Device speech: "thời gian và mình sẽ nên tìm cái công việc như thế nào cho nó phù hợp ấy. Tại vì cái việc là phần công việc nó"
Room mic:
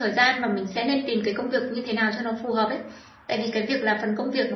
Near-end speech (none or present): none